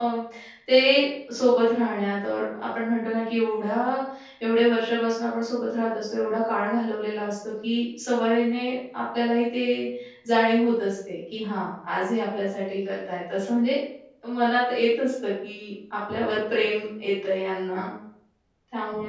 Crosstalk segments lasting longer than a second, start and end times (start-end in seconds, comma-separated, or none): none